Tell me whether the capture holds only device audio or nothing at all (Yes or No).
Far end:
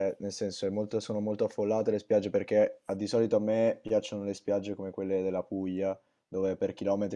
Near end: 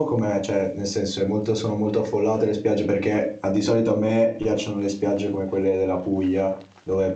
Yes